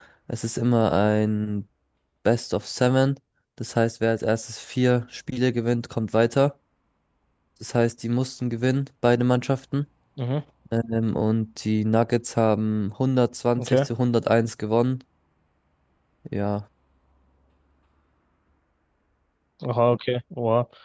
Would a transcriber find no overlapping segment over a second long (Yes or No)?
Yes